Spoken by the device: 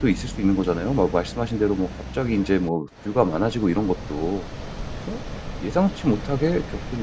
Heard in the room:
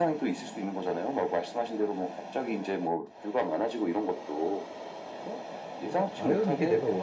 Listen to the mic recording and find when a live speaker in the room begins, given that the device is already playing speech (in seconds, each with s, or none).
5.8 s